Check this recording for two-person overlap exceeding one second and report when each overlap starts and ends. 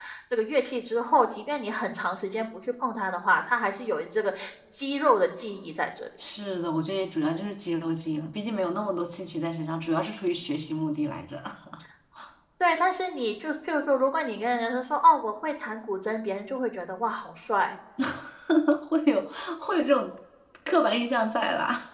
none

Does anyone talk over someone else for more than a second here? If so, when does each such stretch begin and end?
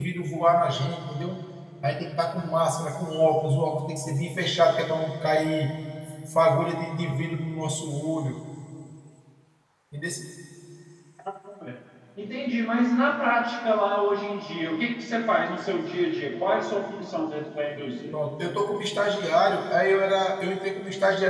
none

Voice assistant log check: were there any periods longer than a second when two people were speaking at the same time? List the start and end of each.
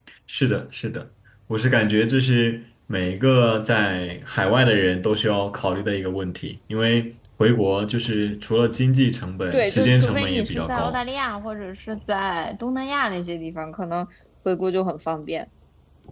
9.5-11.0

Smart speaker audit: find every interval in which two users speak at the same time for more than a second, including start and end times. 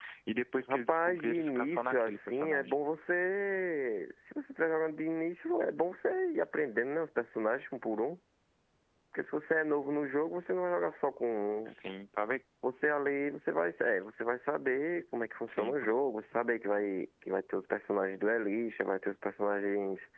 0.7-2.8

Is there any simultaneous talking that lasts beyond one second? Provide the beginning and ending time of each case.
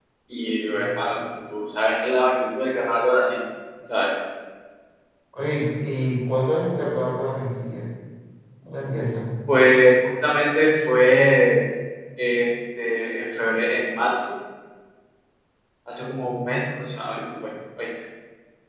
none

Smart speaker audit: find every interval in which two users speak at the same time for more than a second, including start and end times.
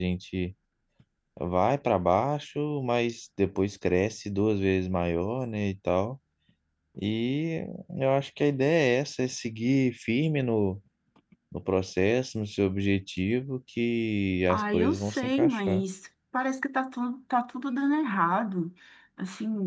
14.5-15.8

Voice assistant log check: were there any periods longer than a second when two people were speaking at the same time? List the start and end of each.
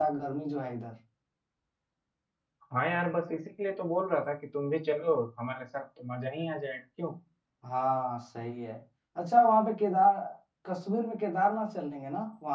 none

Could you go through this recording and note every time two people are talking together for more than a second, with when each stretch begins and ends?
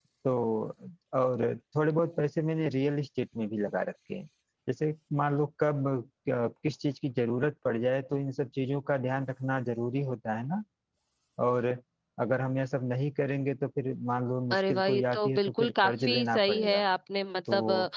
14.5-16.8

